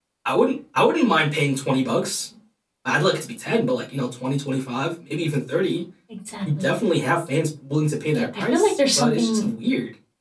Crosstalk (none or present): present